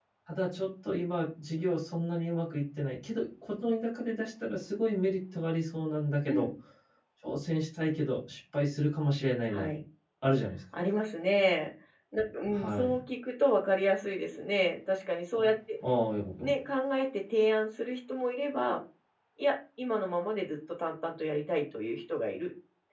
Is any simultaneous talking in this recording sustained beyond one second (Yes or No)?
No